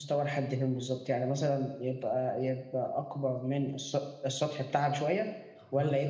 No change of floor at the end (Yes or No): Yes